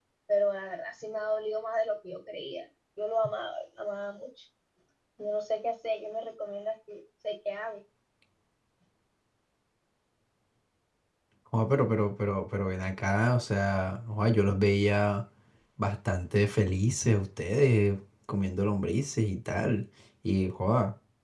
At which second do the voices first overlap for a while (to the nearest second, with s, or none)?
none